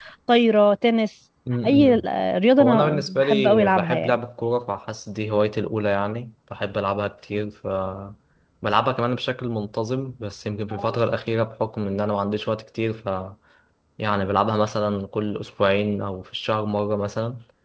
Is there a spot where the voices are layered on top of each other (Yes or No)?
Yes